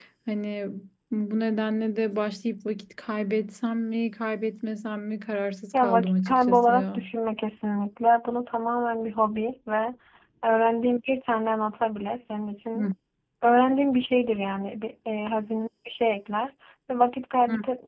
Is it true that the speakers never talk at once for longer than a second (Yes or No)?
No